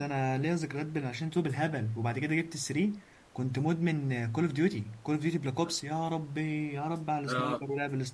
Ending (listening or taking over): listening